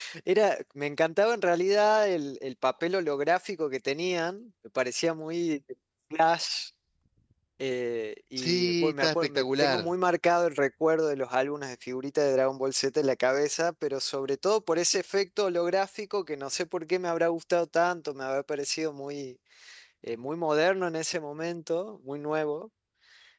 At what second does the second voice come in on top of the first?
8.4 s

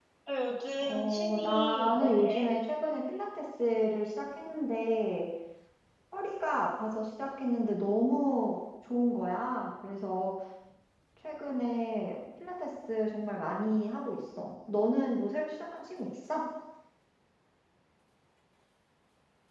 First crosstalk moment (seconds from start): 0.8 s

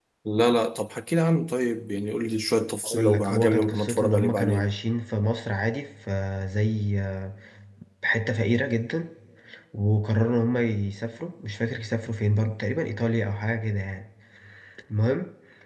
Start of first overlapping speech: 2.8 s

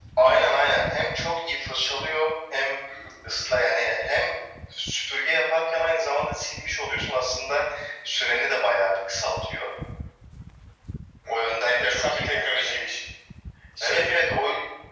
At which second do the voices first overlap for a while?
11.3 s

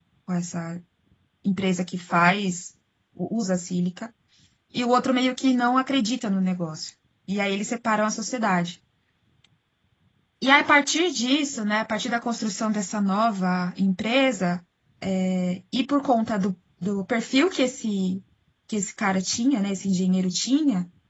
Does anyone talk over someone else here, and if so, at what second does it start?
none

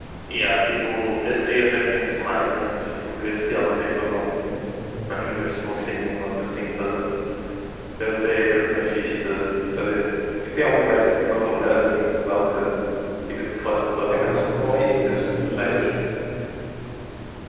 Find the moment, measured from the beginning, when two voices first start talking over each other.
14.1 s

